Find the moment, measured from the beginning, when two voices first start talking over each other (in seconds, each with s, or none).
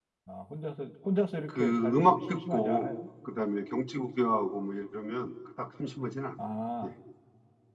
1.5 s